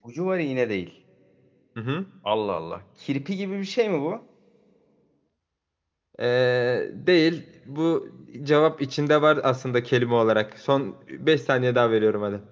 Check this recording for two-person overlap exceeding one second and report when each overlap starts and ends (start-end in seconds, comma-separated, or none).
none